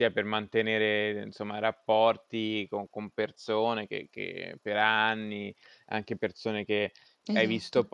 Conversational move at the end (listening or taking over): listening